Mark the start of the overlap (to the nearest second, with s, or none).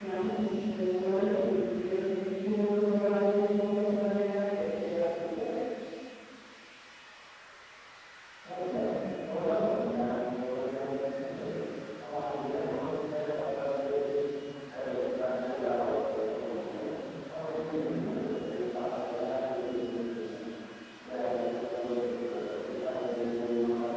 none